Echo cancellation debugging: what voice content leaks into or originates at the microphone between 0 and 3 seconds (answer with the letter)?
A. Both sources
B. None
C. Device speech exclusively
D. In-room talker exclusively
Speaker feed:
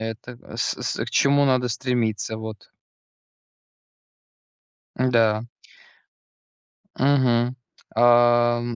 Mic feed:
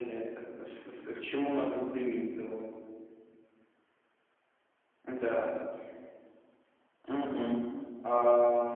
C